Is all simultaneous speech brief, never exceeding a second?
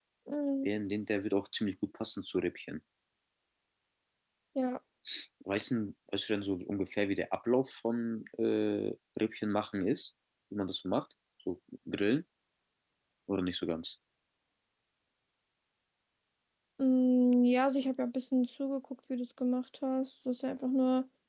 Yes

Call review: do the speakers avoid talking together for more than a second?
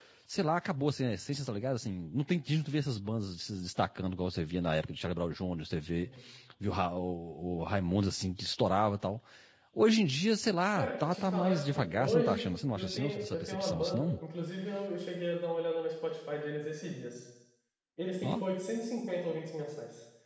No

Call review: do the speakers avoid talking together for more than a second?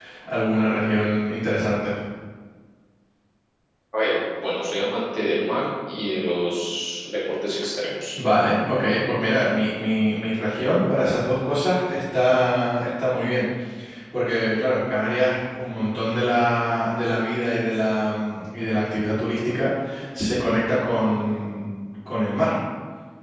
Yes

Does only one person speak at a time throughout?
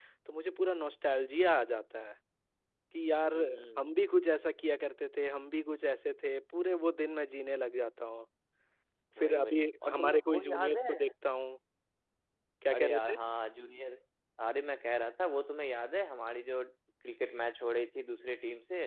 No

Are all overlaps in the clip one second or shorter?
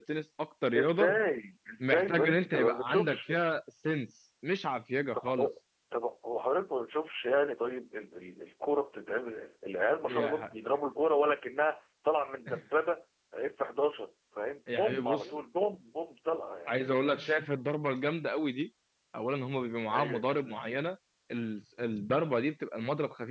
No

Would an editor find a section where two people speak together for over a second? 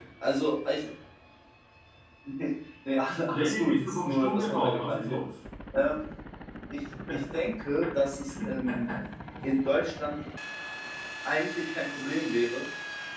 Yes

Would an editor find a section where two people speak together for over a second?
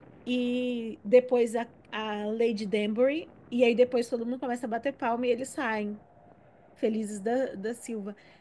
No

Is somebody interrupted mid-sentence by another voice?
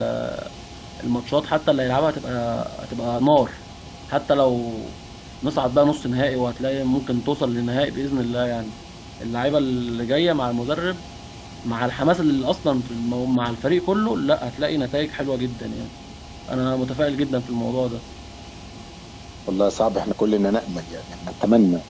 No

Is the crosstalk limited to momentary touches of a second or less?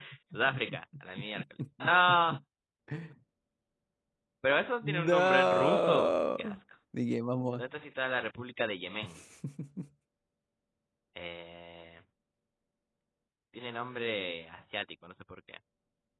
No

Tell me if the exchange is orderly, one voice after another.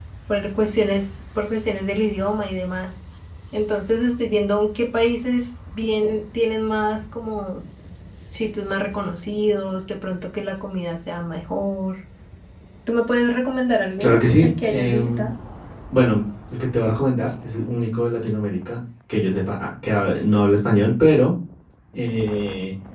No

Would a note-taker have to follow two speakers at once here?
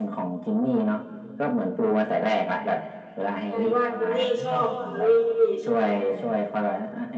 Yes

